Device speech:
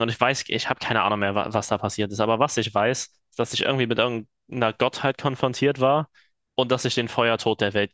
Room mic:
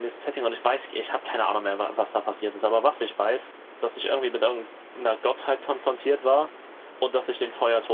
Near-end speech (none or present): none